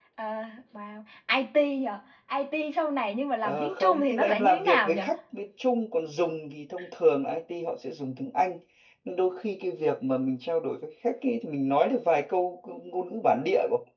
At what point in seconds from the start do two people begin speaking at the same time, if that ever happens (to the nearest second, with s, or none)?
3 s